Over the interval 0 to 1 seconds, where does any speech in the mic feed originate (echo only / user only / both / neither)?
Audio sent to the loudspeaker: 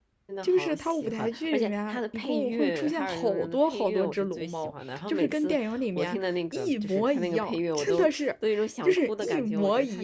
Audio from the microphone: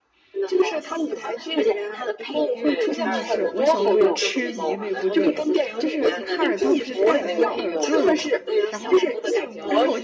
echo only